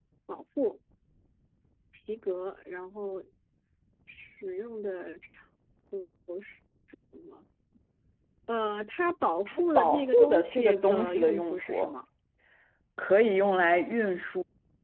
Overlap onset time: 9.5 s

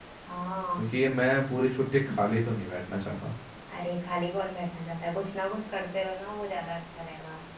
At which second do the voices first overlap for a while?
none

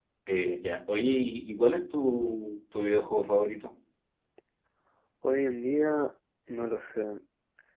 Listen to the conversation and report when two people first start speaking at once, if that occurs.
none

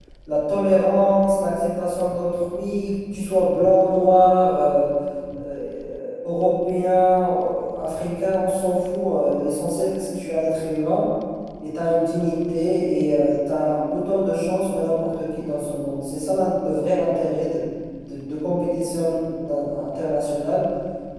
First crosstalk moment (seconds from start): none

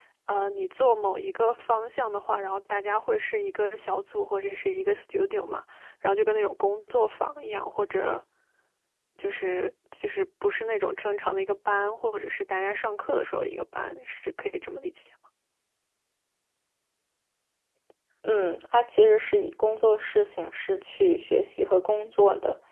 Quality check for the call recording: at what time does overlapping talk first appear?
none

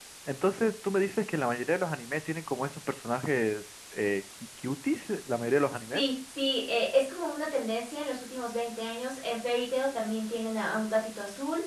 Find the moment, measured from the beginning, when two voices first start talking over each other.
none

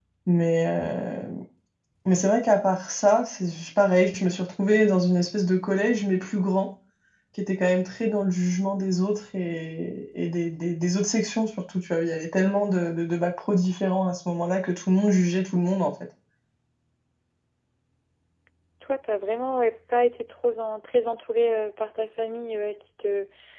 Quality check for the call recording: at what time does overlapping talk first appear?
none

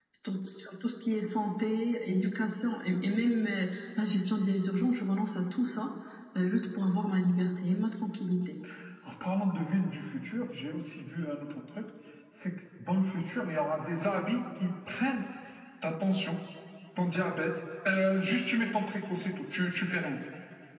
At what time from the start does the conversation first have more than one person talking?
none

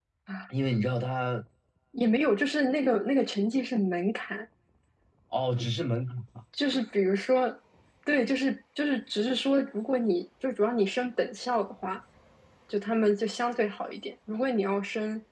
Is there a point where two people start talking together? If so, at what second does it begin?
none

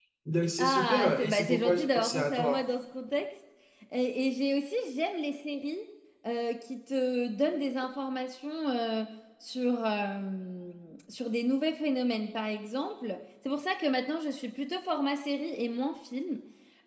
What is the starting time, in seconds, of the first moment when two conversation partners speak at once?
0.6 s

